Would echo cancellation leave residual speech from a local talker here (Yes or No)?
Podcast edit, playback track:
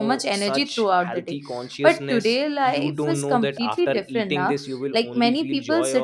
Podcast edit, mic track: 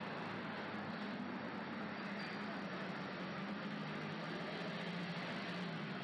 No